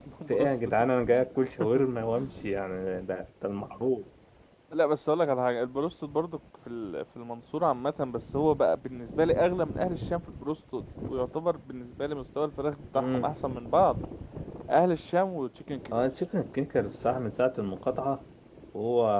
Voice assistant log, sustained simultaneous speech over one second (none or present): none